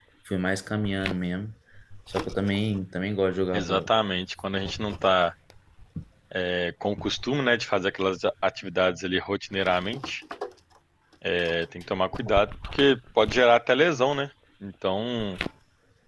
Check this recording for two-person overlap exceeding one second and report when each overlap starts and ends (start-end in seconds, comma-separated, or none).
none